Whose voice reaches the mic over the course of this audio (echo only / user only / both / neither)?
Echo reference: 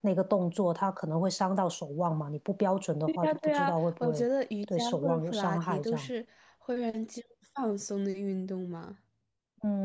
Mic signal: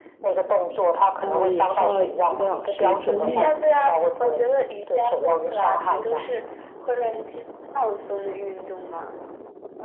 both